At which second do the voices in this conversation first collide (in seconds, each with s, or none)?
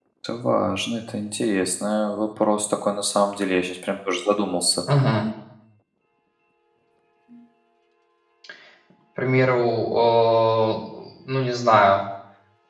none